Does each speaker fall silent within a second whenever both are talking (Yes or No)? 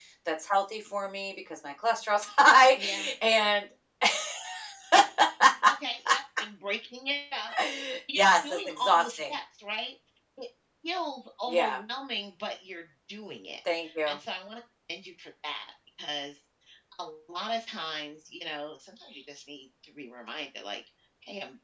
No